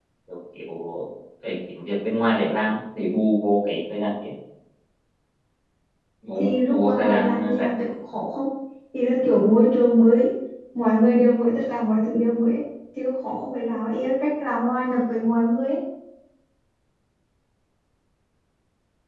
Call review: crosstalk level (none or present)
present